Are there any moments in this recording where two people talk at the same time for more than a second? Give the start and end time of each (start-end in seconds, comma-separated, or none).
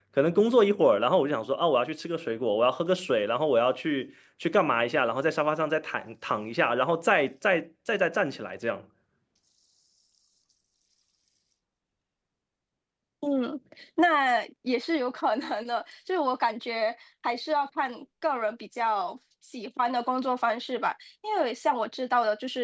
none